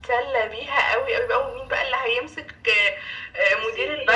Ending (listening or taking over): listening